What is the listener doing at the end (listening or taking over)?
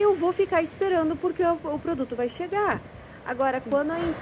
listening